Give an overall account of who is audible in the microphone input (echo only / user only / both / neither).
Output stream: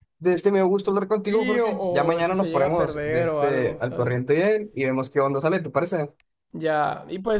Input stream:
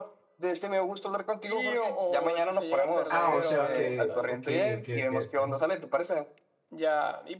both